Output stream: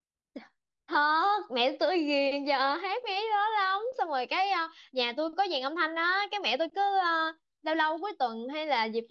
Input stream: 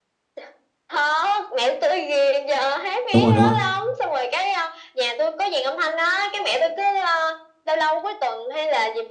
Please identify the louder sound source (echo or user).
user